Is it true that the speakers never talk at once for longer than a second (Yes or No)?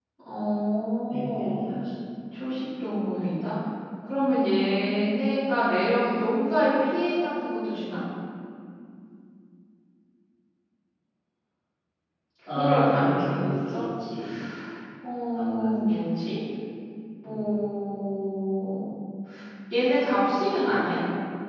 No